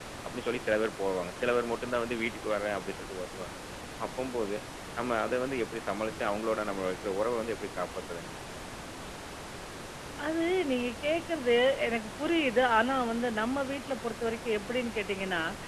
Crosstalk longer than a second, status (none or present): none